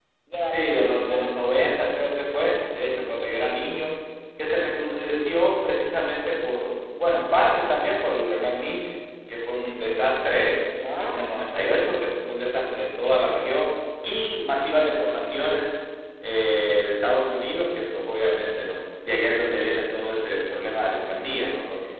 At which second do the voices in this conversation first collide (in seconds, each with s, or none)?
0.5 s